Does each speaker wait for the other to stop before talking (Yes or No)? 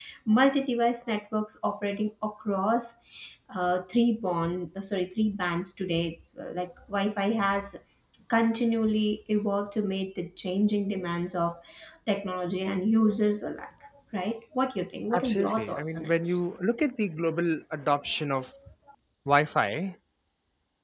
No